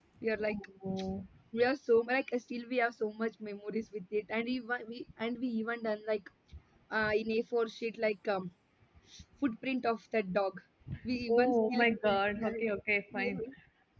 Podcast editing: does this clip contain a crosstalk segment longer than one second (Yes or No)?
Yes